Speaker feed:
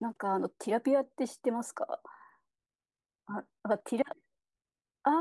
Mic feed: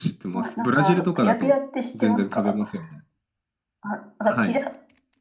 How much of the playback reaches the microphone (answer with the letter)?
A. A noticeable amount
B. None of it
A